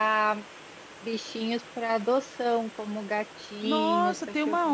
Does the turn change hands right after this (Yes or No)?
Yes